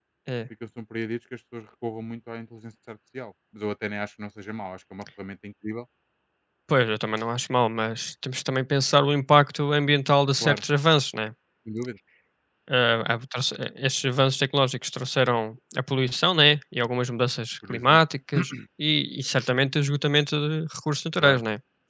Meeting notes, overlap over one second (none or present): none